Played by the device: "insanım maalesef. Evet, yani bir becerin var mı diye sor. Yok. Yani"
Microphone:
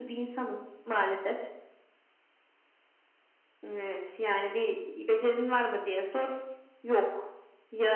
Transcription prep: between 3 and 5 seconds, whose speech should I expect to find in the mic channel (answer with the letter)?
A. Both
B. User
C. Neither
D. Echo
D